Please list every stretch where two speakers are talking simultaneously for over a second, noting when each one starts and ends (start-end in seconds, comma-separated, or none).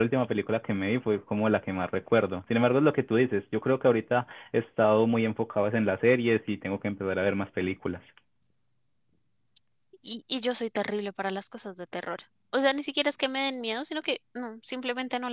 none